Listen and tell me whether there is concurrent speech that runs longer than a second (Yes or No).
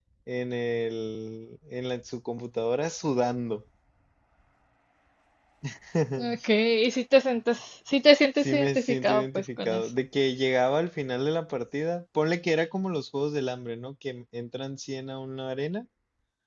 Yes